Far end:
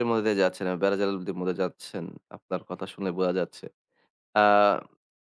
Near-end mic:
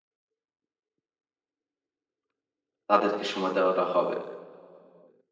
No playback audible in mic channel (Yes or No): Yes